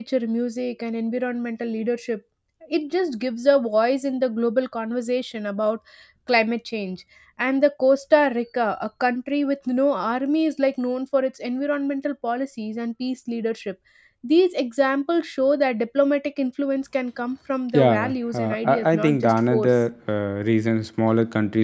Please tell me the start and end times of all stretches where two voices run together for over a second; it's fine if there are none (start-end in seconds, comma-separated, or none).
17.7-19.7